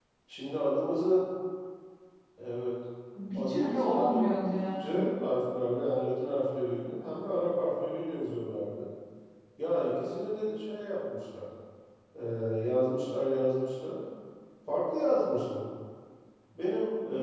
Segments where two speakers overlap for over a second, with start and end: 3.3-5.1

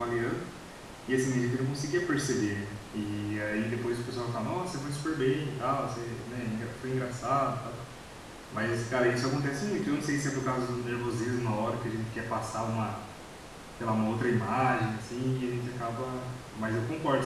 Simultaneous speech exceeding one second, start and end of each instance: none

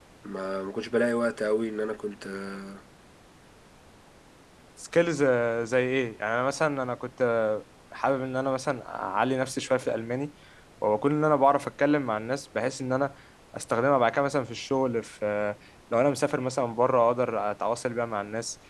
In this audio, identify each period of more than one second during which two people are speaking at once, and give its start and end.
none

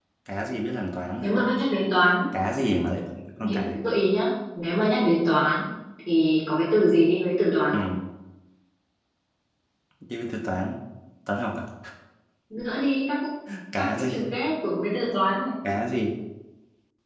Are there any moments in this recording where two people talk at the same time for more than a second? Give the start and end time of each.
none

